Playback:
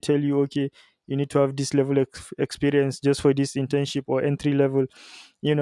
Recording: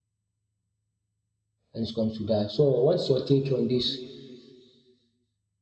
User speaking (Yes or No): Yes